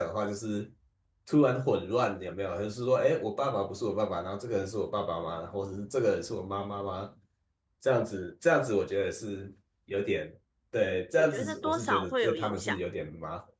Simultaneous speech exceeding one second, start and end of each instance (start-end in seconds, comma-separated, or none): 11.2-12.8